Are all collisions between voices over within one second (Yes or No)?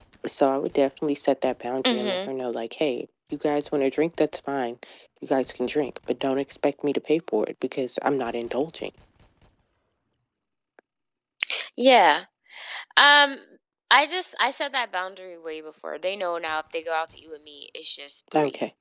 Yes